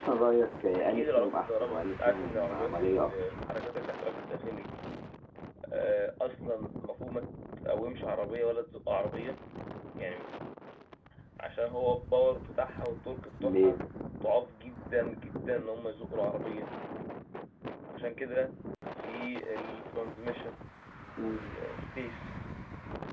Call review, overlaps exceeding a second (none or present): present